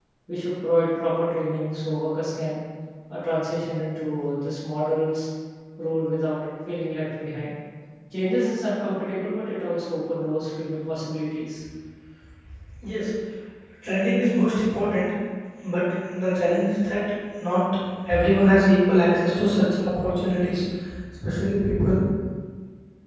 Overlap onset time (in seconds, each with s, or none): none